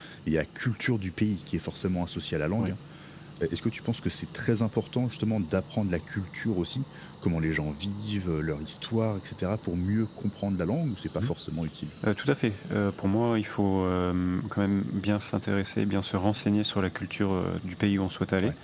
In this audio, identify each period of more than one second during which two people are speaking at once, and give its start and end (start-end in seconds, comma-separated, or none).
none